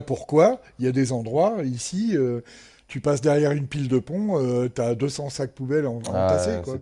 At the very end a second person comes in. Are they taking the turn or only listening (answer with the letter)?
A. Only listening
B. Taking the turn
B